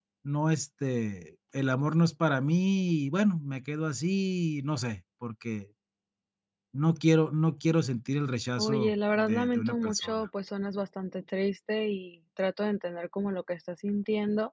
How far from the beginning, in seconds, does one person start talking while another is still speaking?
8.6 s

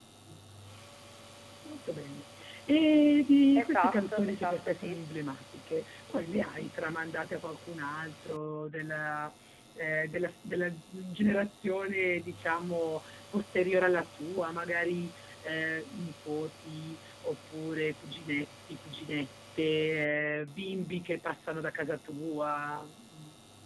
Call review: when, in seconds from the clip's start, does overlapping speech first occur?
3.6 s

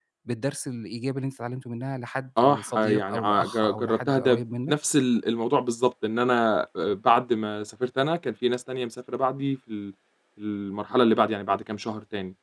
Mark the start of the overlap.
2.4 s

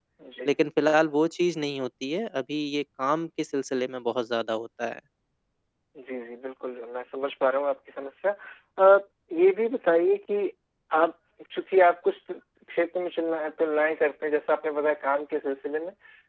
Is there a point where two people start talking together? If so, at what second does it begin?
none

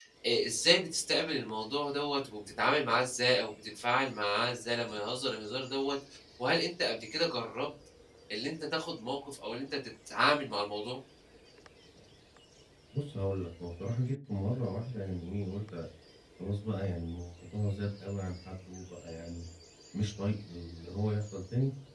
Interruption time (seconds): none

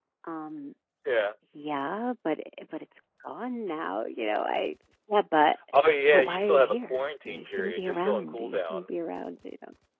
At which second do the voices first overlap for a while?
6.1 s

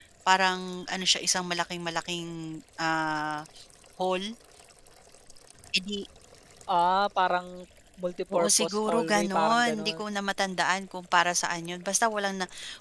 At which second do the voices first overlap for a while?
8.3 s

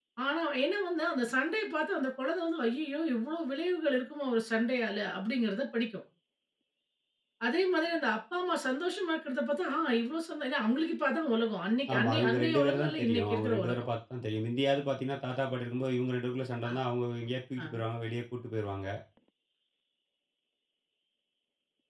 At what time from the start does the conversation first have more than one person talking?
11.9 s

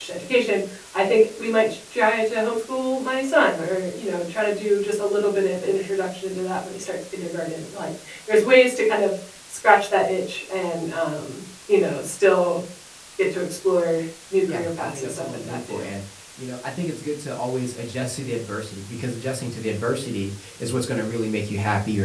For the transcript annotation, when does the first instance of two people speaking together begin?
14.5 s

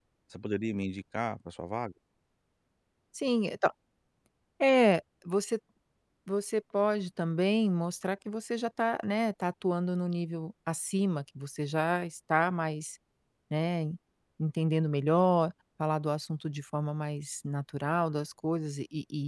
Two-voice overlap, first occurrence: none

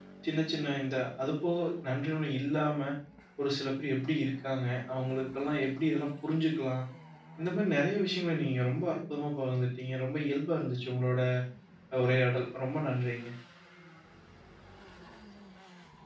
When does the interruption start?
none

